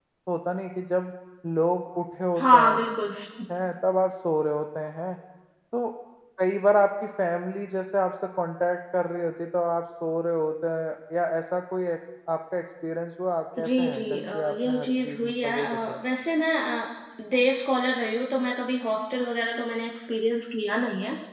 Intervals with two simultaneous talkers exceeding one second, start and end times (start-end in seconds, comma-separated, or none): 13.6-16.0